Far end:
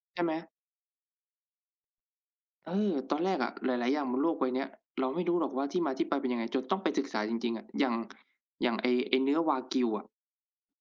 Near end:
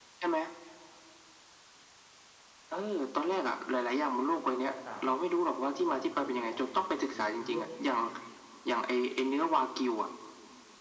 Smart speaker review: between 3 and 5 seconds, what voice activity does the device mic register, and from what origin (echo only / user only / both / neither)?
both